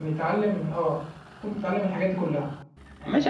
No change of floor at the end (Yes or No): No